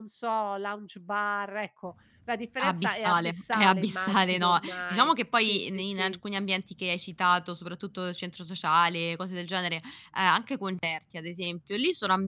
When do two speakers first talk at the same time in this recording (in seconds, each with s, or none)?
2.6 s